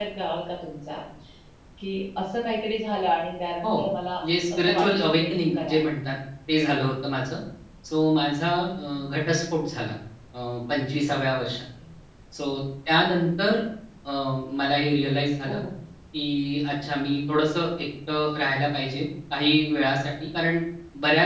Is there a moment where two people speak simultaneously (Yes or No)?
Yes